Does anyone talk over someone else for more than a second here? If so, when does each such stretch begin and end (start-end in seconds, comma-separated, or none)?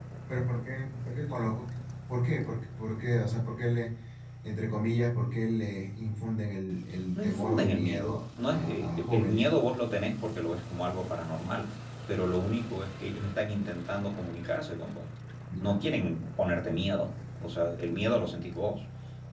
7.2-9.5